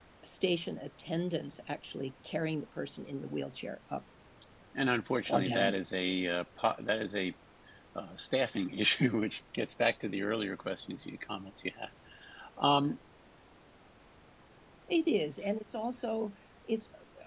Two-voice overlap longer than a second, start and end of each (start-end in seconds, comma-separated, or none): none